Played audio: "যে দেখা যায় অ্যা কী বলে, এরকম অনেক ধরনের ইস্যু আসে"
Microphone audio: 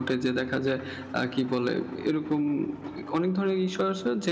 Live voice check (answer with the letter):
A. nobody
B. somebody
A